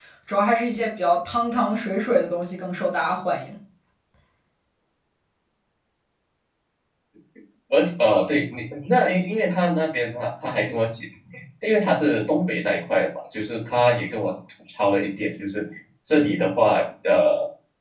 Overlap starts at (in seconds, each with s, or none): none